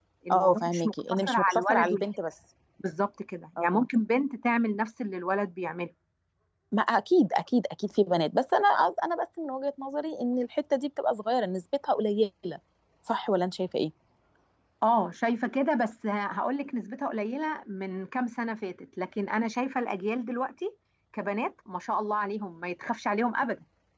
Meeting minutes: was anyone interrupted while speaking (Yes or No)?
Yes